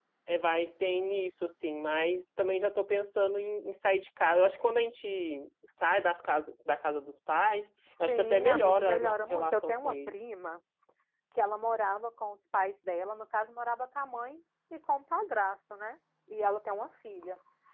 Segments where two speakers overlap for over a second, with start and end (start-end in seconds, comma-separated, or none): 8.1-10.2